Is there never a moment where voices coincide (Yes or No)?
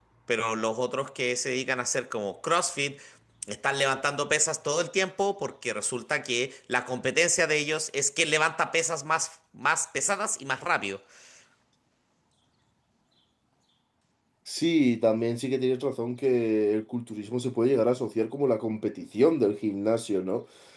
Yes